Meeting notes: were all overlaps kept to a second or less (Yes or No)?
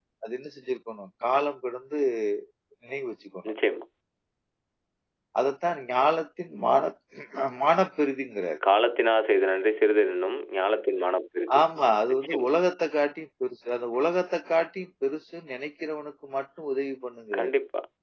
Yes